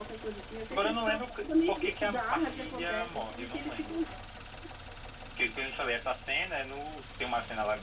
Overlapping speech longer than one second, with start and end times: 0.7-4.0

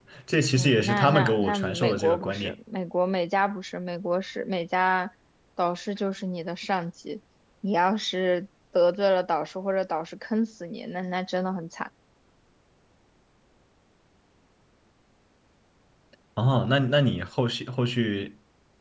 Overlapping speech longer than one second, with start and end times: 0.5-2.6

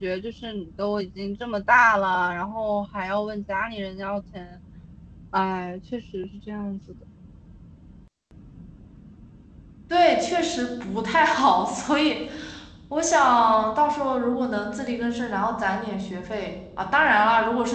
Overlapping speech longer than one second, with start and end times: none

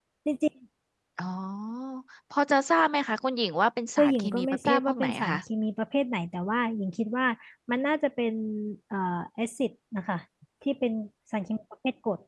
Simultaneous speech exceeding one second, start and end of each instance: 4.0-5.4

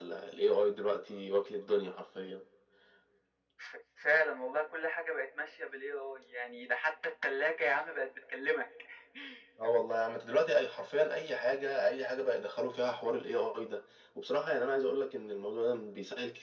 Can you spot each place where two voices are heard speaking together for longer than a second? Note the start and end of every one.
none

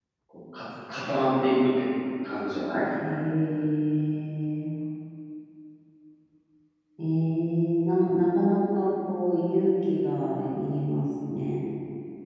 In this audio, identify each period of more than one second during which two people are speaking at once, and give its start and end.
none

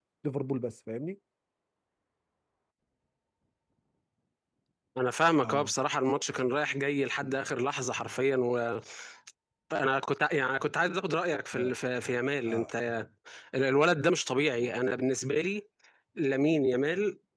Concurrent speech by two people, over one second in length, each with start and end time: none

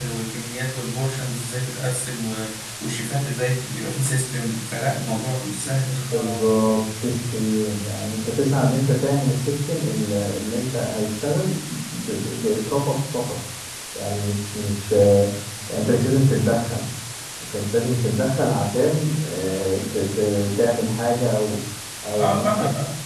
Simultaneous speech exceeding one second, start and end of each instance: none

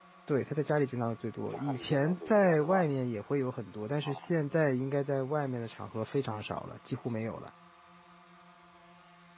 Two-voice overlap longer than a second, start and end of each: 1.5-2.9

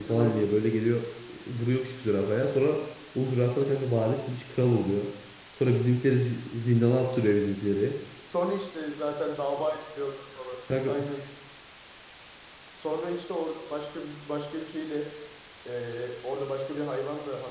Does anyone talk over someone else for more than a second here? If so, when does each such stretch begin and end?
none

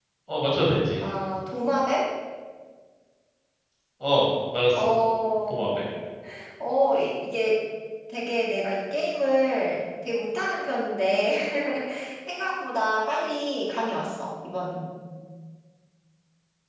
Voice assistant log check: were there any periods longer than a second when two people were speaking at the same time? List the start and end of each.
none

